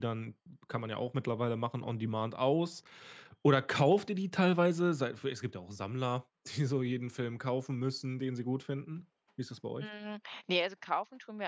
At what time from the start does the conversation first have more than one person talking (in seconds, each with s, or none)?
none